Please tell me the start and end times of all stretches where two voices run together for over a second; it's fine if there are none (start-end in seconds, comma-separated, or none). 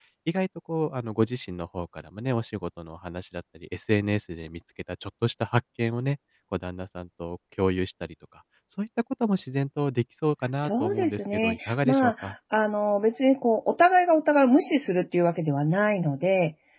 10.6-12.3